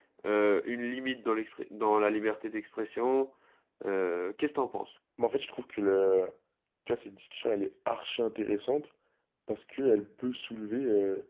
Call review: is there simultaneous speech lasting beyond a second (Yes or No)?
No